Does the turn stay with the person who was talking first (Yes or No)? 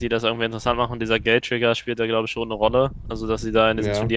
Yes